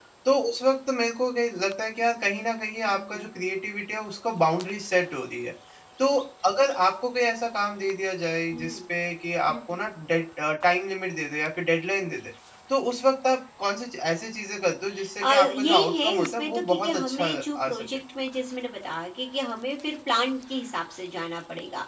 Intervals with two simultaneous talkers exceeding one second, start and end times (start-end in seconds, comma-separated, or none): 15.2-17.8